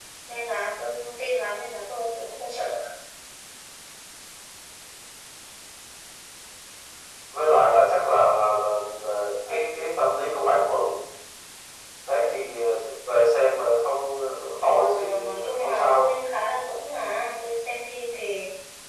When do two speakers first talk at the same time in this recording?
14.9 s

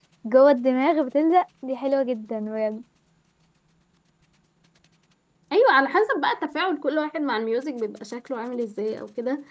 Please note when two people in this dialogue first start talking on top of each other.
none

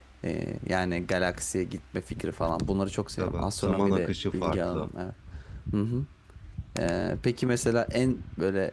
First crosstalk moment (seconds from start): 3.2 s

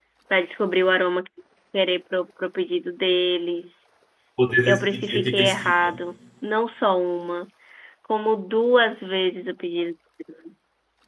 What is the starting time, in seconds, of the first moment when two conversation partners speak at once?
4.7 s

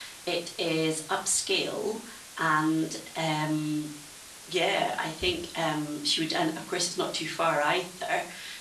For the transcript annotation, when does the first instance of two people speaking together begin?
none

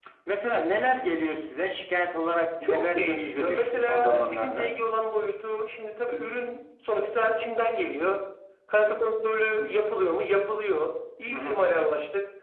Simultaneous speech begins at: 2.6 s

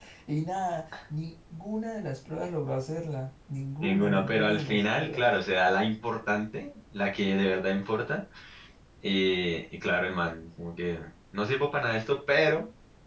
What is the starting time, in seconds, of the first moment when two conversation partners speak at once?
3.8 s

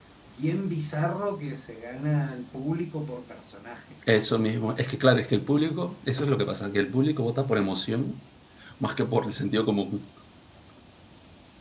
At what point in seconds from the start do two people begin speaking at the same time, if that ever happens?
none

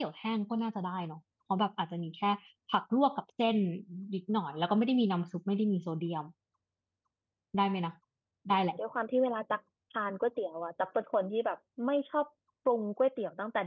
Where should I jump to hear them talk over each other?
none

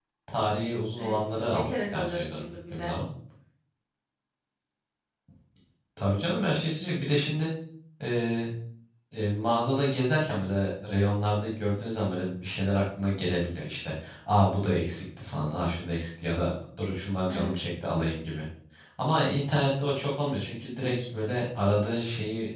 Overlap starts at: 0.9 s

